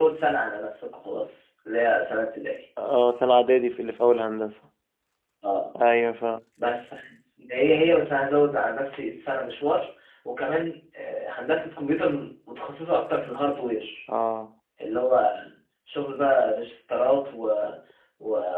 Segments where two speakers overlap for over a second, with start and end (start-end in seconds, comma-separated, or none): none